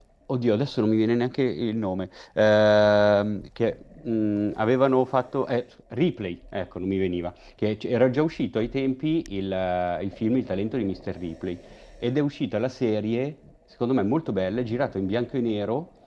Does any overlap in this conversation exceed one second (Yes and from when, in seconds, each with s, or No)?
No